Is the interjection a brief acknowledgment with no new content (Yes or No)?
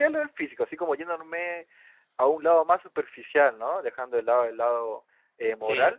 Yes